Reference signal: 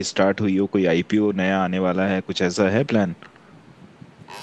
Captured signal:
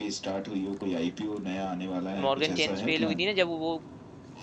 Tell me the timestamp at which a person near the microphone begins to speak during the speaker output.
2.2 s

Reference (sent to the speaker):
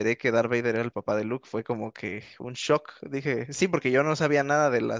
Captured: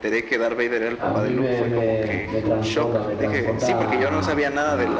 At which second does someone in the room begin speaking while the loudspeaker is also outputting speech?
1.0 s

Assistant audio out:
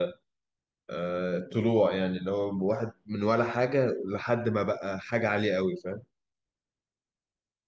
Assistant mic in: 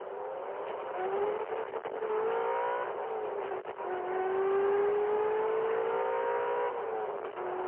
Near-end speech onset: none

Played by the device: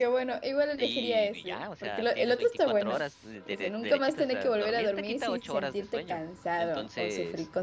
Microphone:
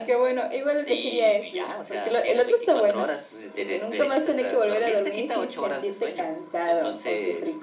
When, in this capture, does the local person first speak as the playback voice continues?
none

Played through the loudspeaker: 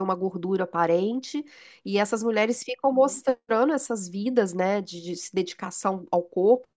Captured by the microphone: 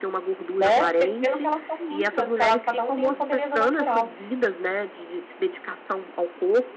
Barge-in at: 0.6 s

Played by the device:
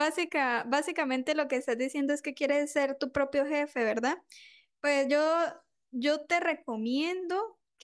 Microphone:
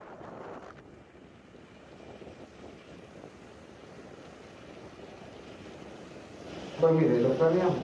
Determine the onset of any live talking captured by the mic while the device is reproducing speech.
6.7 s

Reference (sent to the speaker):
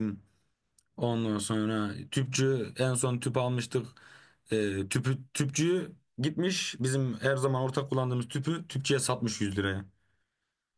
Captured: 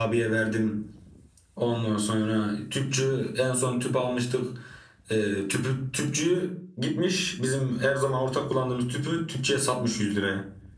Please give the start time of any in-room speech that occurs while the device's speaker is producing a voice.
none

